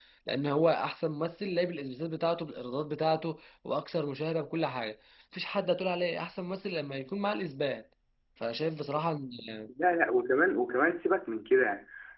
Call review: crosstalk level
none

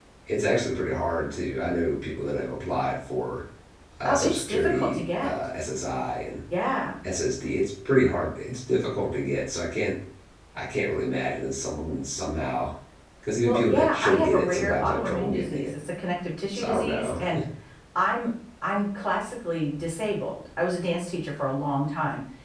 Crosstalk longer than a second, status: present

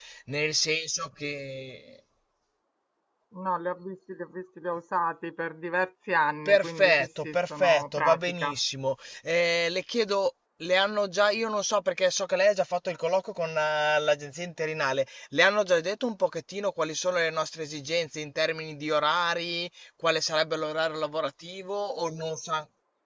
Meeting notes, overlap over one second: present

